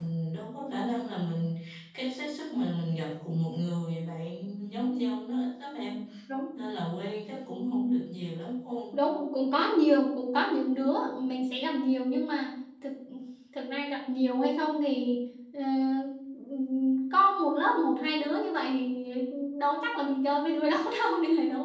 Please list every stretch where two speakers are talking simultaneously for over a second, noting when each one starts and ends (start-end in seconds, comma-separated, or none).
none